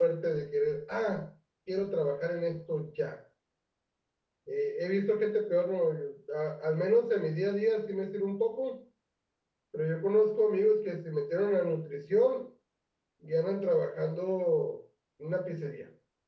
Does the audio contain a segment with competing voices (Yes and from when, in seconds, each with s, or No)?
No